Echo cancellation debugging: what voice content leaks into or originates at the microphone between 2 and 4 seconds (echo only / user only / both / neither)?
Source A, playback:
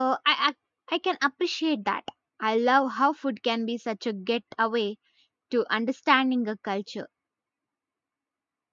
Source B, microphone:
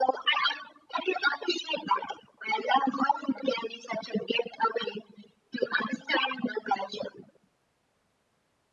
echo only